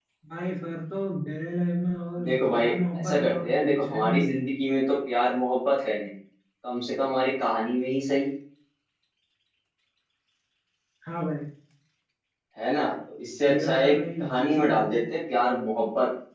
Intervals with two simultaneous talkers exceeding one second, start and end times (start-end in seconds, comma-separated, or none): 2.2-4.3, 13.4-15.0